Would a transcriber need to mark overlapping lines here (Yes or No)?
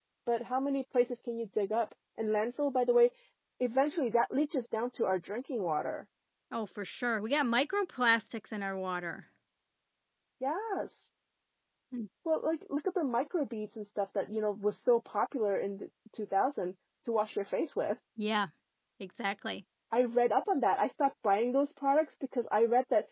No